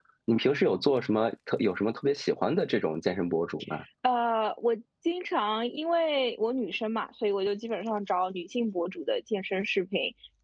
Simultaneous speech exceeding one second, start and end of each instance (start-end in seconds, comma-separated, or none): none